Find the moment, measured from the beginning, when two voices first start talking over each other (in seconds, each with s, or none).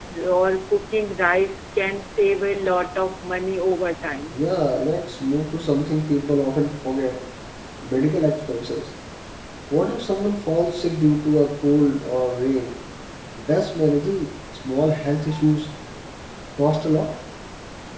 none